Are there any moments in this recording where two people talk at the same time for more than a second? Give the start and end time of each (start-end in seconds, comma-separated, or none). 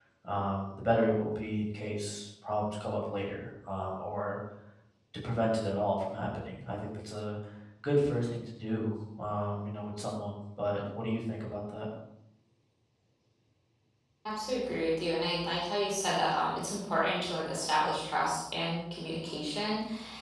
none